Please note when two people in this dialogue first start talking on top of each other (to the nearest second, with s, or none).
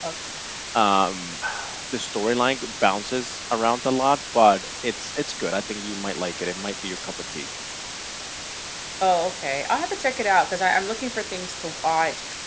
none